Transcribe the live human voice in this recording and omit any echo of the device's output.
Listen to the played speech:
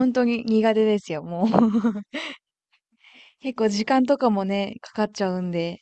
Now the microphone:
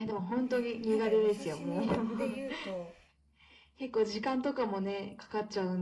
え、え、なんかお刺身だって言うと、

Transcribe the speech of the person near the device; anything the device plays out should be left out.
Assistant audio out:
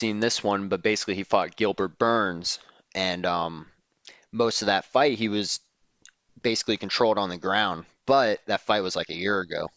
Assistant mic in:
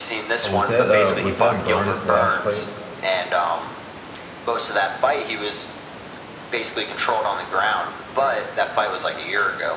Oh, was that uh was that Burns' last fight?

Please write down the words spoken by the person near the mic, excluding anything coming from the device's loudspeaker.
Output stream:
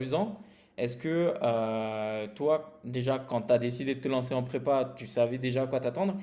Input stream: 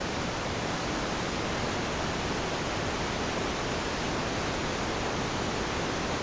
none

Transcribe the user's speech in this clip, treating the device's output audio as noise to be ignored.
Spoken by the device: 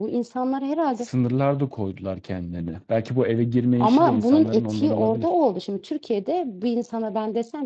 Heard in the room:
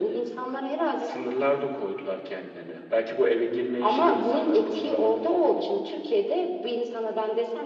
none

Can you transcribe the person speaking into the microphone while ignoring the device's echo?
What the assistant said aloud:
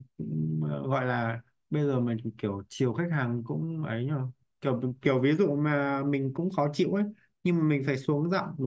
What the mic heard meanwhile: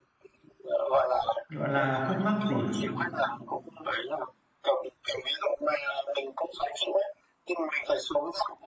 gọi là khúc mắc gì à

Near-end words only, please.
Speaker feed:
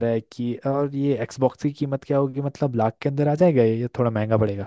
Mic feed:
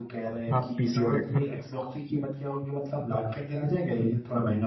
हाँ पीसी और एक

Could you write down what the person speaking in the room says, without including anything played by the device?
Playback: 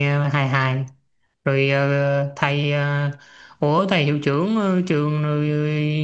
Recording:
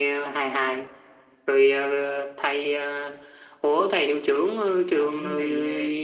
Ông thì ờ,

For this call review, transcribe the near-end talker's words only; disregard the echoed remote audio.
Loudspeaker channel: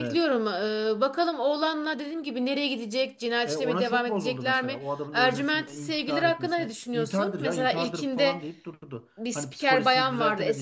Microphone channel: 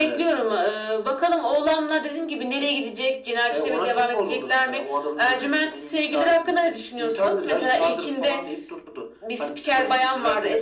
none

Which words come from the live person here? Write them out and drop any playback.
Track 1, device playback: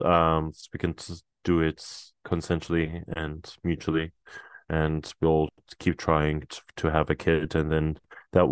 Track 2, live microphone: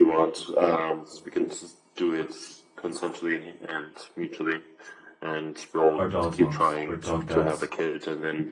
are dog moms or dog dads.

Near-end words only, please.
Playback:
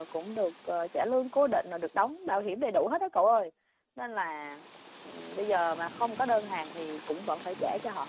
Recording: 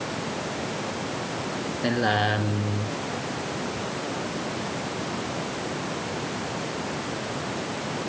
nên là ừm,

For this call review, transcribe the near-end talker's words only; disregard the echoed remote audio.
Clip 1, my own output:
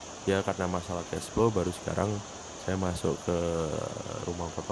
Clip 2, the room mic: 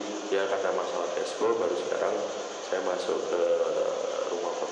none

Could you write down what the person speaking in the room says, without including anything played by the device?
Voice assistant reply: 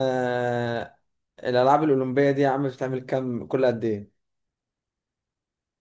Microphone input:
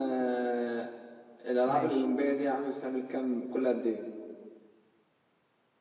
ماشي

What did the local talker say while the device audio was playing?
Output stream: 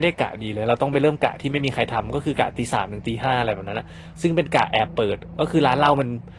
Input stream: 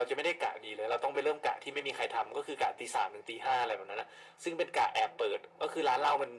none

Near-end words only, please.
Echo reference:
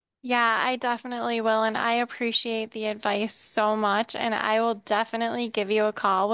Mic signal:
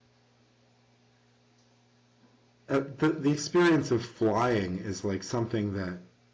uh, the the experience of flying is like something that

